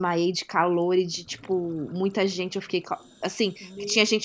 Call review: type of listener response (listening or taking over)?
listening